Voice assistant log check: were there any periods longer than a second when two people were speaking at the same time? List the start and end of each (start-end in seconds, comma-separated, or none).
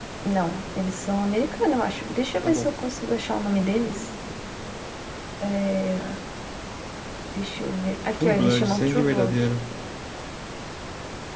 8.1-9.5